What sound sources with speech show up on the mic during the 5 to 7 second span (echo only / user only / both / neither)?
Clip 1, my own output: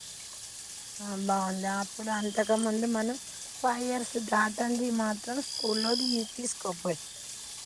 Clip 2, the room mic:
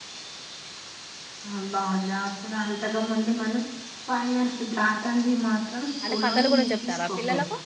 both